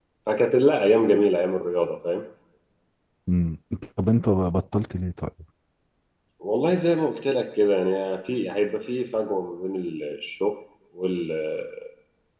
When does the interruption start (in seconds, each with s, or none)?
none